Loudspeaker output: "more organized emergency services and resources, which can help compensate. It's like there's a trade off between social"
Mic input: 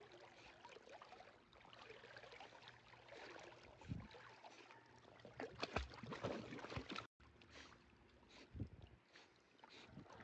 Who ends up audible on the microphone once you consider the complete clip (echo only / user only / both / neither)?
neither